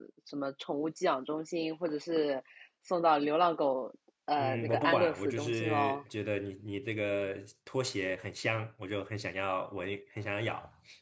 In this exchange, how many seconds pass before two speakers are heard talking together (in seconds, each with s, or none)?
4.4 s